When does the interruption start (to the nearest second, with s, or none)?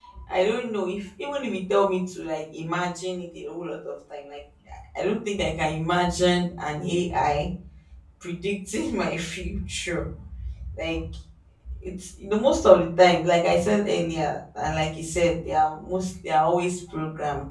none